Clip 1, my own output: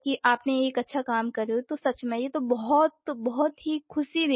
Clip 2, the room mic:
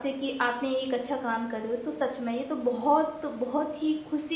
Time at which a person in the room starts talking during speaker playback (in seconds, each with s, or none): none